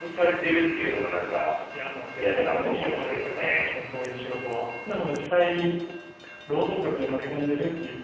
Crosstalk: present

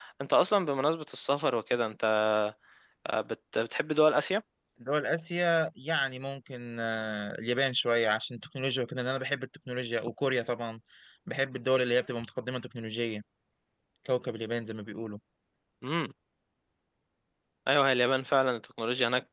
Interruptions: none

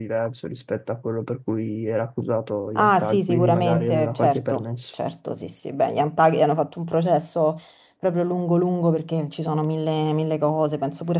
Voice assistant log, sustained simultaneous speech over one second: present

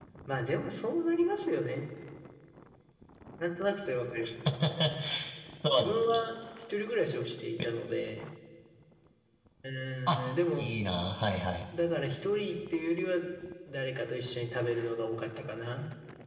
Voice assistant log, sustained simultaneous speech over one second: none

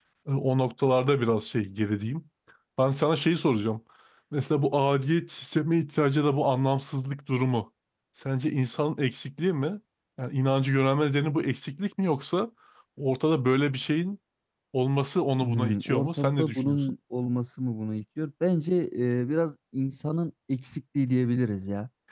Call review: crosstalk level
present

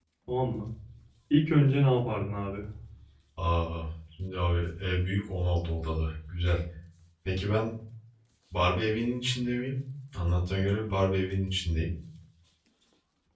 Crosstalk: none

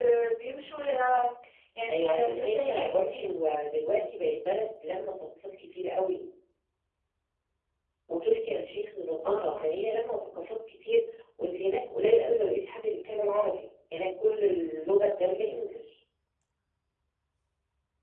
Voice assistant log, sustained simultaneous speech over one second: present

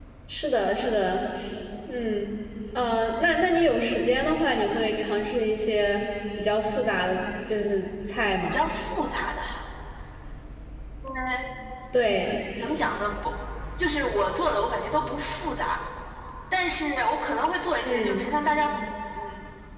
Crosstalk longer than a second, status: none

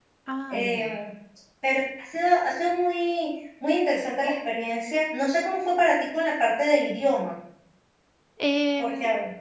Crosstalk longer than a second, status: none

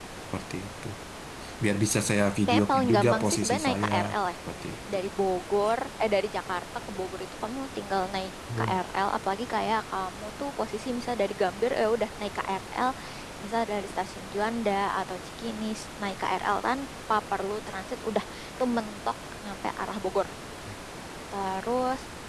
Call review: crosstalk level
present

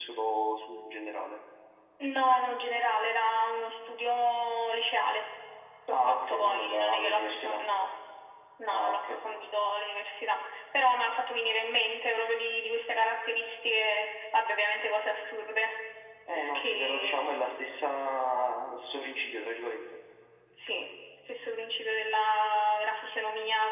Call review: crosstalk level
present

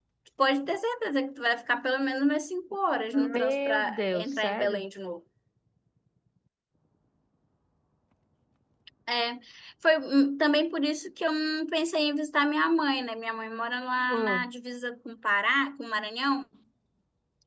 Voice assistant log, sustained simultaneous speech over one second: present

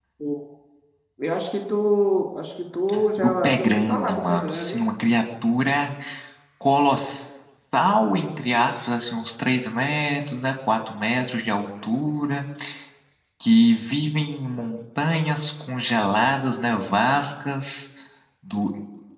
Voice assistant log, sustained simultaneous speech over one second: present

